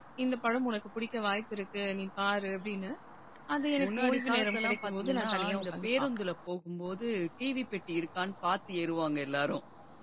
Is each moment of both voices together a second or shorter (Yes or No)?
No